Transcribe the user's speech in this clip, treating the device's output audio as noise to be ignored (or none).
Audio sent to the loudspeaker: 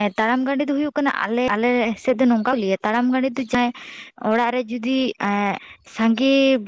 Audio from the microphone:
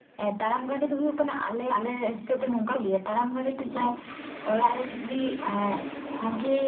none